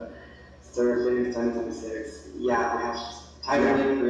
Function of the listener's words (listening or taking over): listening